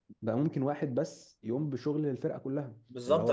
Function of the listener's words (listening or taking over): taking over